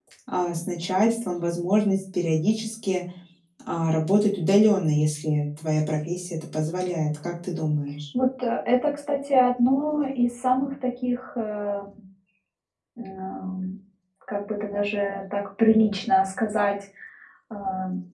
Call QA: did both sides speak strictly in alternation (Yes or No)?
Yes